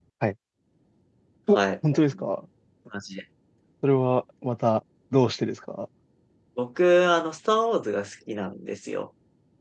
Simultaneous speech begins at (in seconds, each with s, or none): none